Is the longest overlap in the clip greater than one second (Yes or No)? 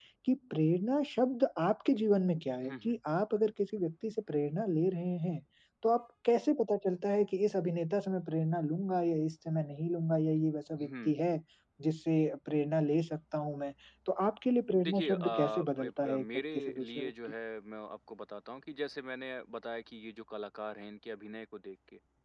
Yes